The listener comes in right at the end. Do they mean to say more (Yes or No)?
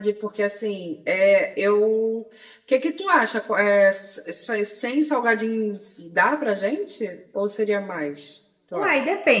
Yes